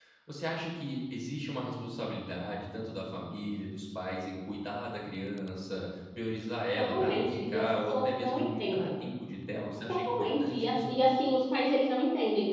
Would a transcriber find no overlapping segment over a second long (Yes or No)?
No